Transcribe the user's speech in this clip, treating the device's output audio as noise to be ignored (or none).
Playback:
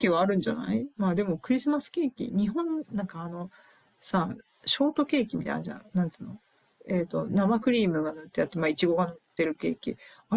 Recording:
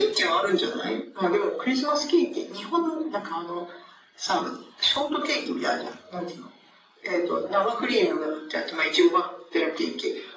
none